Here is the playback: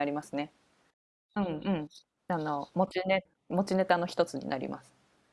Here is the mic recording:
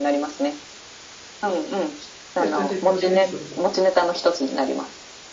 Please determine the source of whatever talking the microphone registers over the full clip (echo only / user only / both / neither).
both